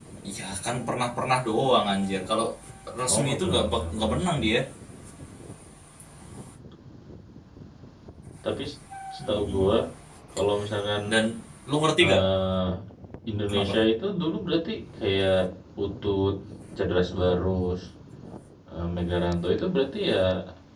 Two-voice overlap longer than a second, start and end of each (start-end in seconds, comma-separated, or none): 3.1-4.5